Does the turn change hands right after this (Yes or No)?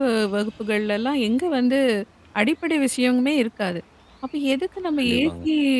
No